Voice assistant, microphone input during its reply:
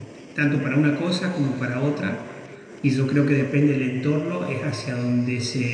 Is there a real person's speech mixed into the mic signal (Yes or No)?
Yes